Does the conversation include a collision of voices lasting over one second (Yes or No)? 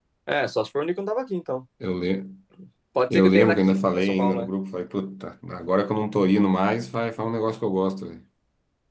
Yes